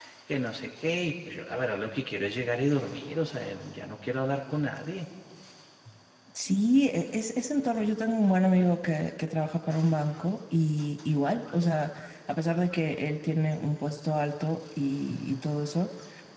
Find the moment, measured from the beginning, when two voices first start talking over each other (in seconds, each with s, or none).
none